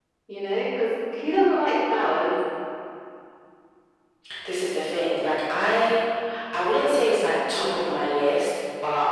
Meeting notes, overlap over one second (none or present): none